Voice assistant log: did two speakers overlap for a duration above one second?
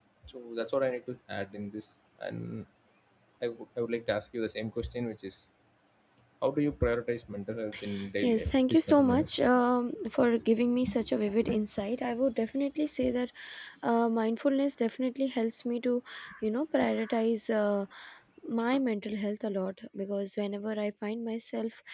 Yes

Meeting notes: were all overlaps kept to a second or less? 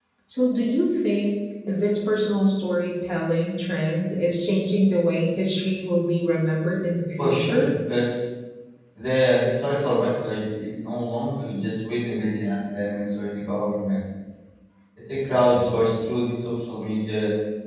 Yes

